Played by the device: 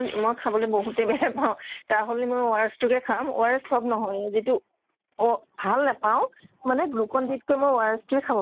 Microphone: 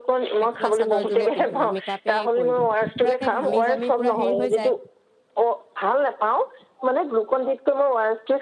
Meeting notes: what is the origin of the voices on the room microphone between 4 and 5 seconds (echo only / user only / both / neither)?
both